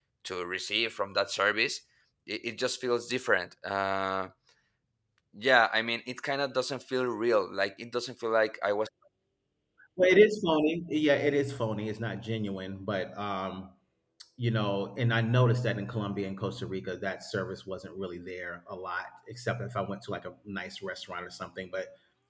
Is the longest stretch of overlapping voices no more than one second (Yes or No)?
Yes